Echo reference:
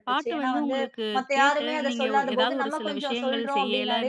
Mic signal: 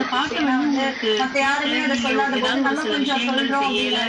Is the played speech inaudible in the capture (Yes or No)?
No